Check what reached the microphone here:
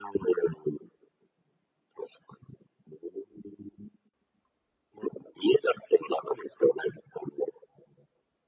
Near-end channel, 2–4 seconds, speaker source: echo only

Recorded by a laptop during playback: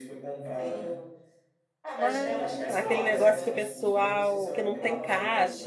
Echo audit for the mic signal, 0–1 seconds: echo only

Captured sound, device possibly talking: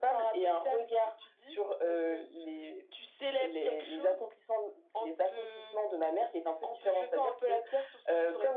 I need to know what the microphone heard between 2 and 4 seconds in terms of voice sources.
echo only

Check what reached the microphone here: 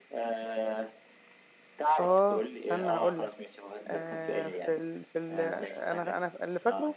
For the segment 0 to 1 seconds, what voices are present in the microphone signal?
echo only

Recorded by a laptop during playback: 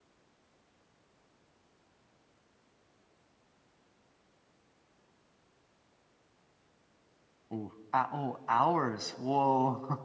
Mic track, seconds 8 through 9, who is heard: user only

